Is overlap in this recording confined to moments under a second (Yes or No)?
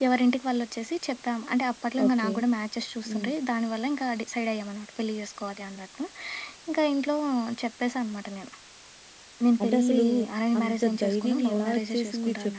No